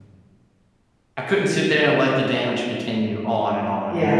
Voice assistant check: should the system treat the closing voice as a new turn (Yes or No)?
Yes